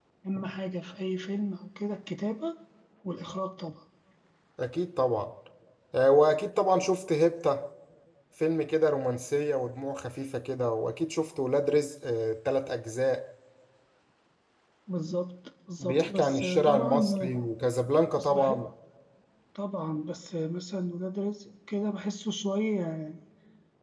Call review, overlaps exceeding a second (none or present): present